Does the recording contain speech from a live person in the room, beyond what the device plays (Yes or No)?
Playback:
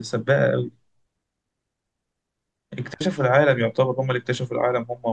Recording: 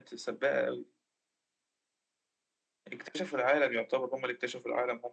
No